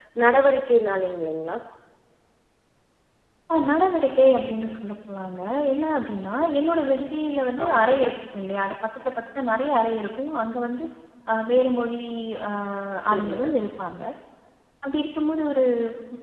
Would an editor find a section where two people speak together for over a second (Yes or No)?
No